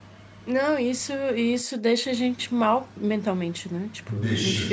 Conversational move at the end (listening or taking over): listening